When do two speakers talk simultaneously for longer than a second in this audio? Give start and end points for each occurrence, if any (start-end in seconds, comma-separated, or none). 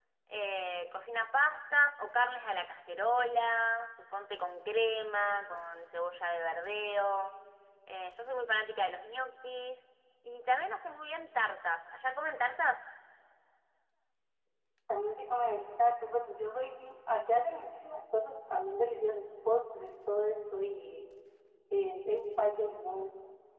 none